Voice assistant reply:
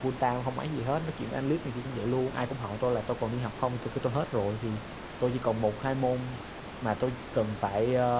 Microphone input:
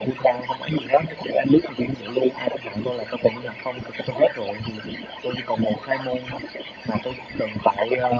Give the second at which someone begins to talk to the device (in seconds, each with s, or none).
none